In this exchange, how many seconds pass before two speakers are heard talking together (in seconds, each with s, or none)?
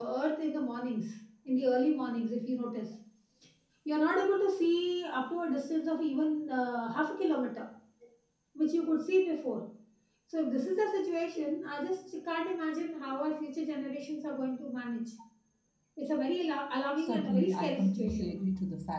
17.0 s